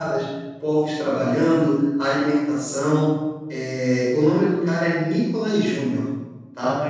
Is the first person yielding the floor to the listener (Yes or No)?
No